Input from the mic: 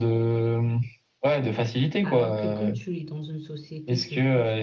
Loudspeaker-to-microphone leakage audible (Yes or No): Yes